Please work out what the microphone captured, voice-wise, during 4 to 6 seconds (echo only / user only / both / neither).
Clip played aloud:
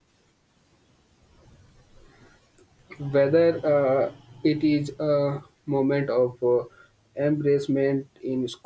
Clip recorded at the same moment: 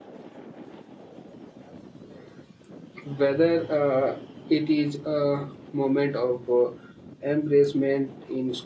echo only